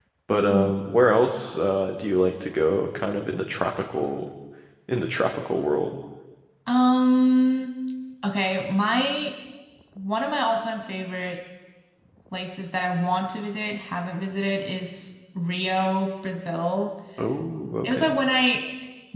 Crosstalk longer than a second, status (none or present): none